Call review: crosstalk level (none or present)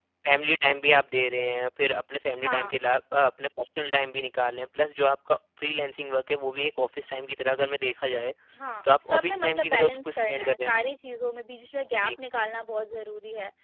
present